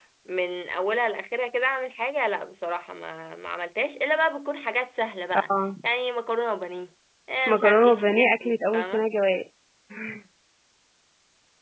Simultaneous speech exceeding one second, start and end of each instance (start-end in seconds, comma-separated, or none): 7.5-9.0